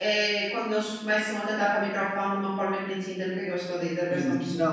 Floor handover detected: Yes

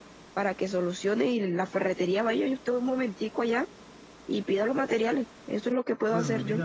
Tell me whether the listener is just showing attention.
No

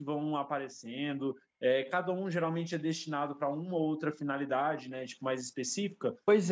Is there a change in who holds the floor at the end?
Yes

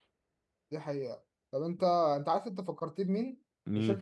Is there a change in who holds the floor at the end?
No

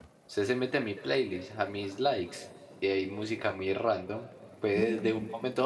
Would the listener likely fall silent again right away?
Yes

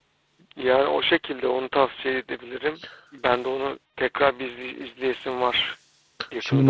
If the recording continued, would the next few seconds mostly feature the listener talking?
Yes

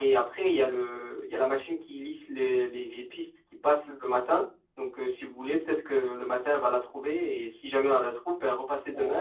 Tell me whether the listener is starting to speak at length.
Yes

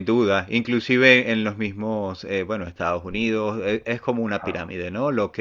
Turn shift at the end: No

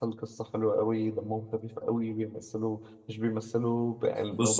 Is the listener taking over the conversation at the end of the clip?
No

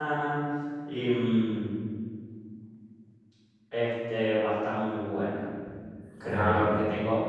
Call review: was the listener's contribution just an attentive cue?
Yes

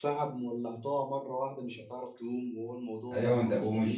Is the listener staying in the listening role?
No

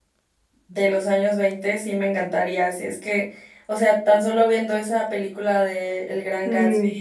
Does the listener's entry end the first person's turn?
No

